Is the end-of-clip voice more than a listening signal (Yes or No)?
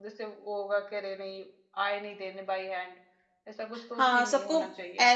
Yes